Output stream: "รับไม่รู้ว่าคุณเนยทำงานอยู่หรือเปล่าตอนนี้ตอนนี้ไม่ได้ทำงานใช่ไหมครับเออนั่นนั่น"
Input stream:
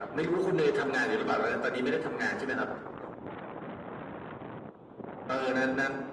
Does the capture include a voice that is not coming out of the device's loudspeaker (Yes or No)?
No